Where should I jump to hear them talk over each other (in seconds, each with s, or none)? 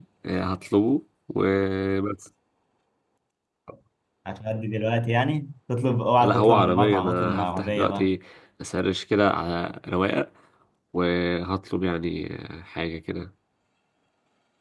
6.2 s